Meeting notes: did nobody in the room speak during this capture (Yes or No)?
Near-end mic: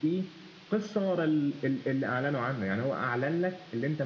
Yes